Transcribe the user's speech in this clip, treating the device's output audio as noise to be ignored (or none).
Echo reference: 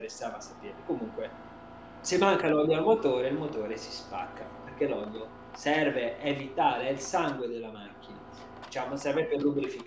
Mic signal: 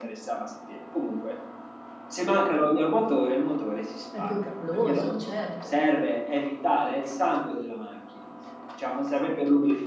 È pericoloso, certo.